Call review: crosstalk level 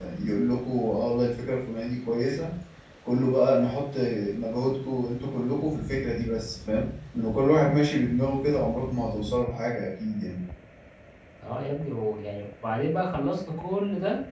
none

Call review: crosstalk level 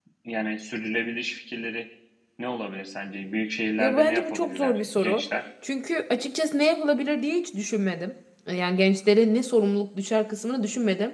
present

